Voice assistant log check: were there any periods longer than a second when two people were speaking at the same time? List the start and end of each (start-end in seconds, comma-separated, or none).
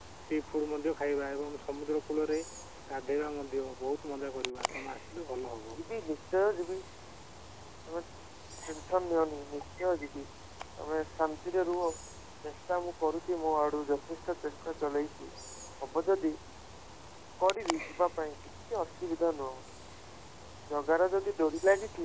none